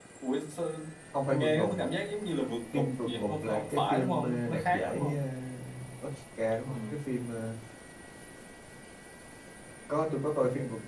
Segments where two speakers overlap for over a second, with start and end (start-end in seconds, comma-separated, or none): 2.7-5.2